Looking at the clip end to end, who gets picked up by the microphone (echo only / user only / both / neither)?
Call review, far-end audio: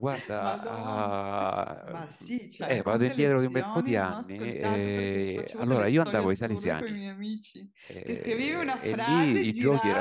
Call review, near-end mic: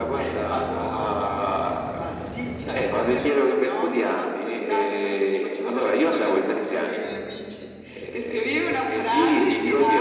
echo only